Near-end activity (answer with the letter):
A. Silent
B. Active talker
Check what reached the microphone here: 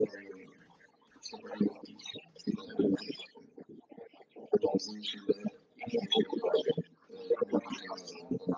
A